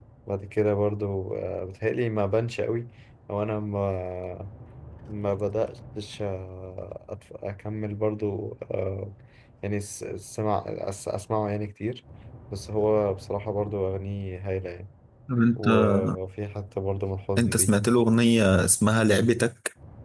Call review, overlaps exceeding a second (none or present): none